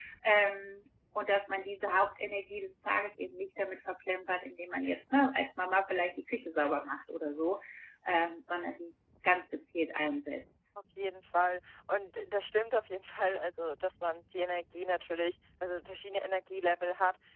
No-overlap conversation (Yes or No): Yes